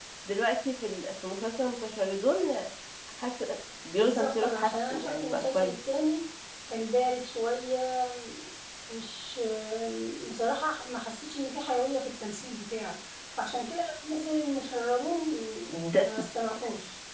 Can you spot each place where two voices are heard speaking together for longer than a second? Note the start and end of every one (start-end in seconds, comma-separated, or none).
4.0-5.7